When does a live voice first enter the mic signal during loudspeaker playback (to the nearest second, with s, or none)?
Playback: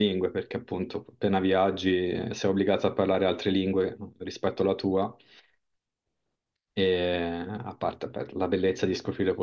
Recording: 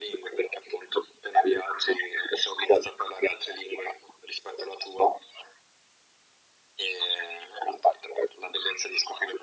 none